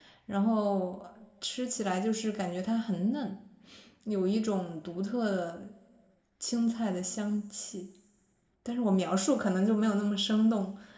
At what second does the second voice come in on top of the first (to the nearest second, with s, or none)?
none